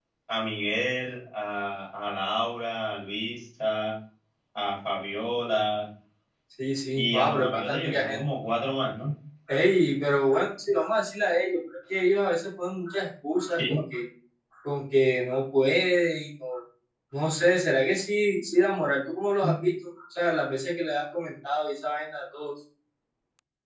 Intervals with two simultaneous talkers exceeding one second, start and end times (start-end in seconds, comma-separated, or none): 6.9-8.2